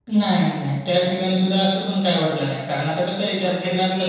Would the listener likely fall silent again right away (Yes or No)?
Yes